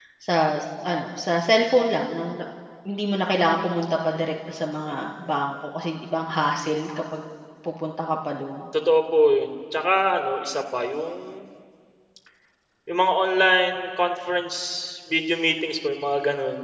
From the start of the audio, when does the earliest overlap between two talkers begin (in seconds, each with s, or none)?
none